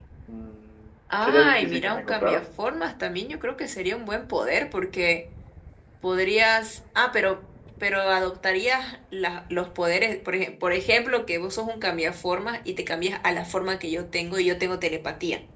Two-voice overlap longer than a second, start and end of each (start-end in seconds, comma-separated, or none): 1.2-2.4